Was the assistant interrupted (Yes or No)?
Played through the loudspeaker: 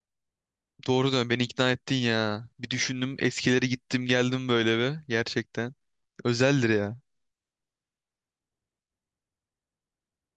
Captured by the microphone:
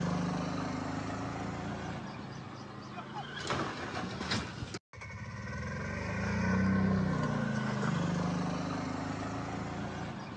No